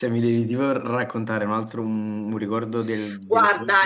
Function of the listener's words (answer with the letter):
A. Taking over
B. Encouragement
A